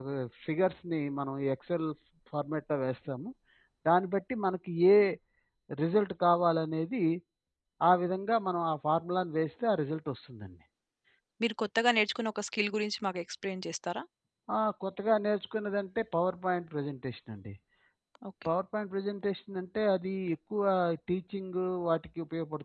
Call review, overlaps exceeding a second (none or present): none